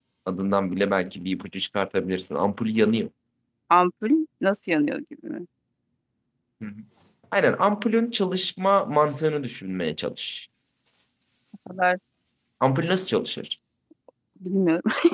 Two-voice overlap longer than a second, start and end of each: none

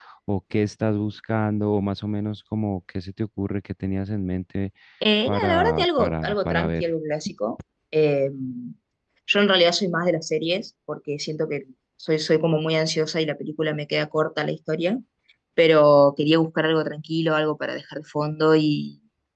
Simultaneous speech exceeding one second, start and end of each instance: 5.3-6.9

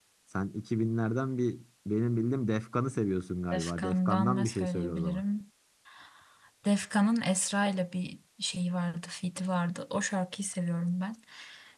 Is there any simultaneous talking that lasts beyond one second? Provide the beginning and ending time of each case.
3.5-5.2

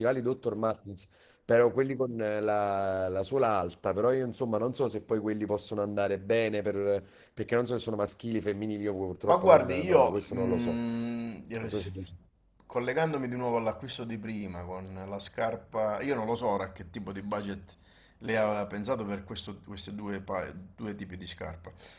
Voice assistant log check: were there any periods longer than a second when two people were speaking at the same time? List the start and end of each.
9.2-10.8

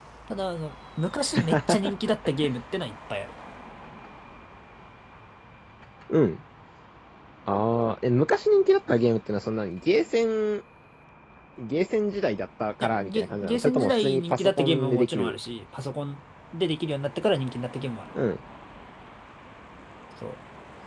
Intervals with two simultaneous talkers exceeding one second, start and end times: 12.8-15.4

